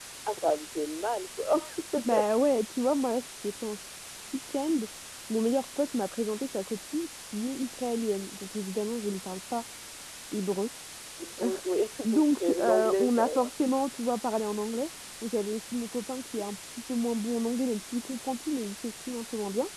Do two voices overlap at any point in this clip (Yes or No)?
Yes